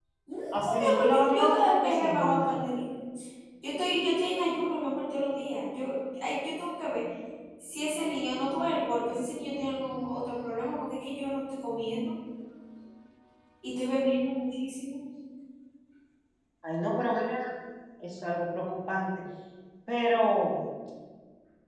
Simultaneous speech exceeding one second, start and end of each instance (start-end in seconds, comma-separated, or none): 0.5-2.7